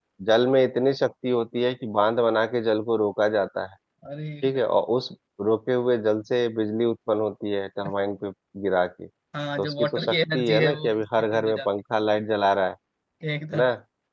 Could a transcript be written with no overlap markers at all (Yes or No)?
No